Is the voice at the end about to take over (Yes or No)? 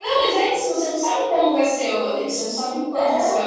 No